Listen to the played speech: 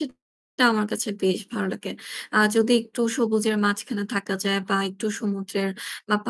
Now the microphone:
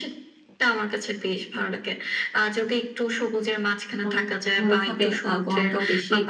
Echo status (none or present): present